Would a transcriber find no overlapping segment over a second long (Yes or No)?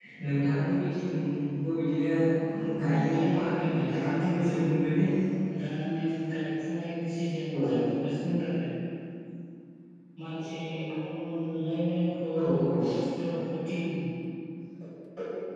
No